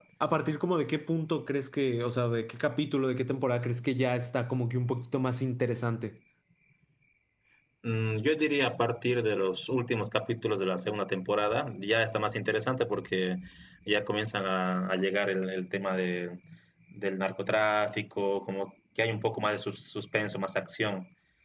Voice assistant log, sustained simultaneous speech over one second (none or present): none